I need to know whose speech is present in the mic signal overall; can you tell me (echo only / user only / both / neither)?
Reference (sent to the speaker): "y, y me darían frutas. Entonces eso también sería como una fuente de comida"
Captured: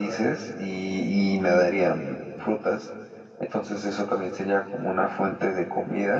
echo only